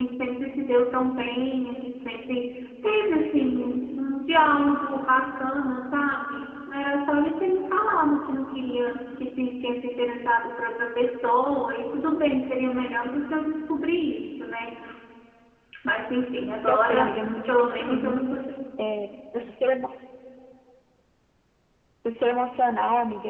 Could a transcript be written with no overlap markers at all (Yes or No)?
No